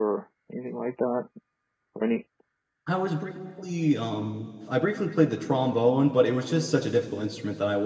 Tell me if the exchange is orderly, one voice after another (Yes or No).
Yes